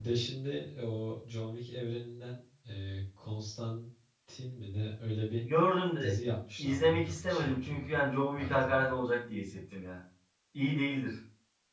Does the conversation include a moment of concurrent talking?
Yes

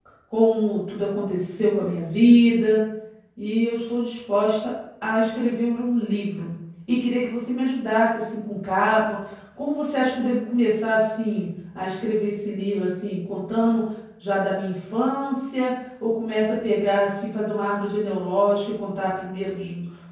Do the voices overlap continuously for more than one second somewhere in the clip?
No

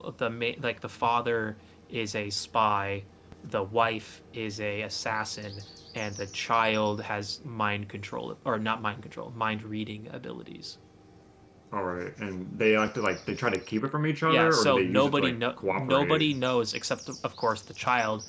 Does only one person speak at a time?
No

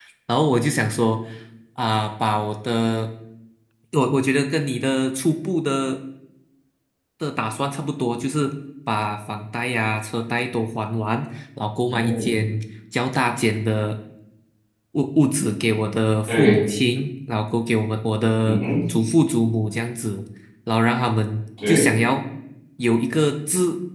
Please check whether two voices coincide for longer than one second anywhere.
No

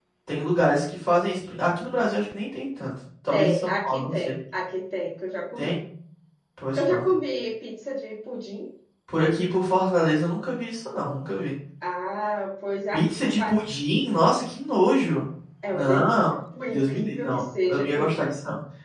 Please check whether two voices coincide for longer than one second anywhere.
Yes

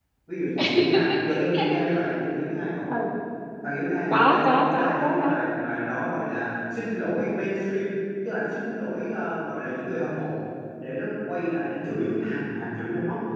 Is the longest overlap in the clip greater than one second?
Yes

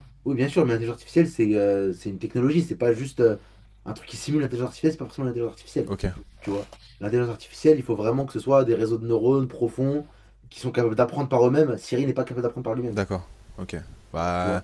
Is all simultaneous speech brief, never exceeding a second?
Yes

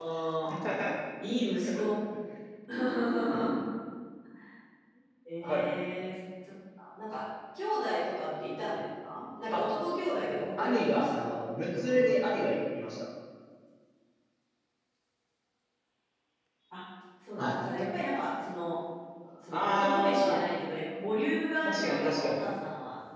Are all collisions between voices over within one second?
No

